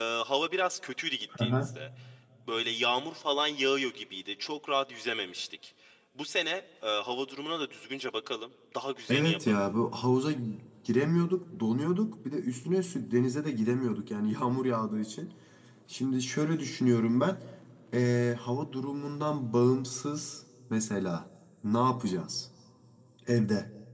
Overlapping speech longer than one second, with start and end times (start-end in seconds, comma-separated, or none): none